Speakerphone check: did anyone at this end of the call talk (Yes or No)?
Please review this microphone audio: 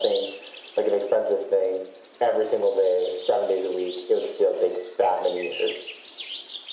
No